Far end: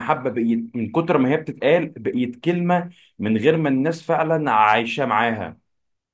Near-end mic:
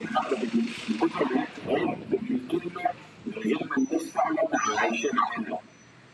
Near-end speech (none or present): none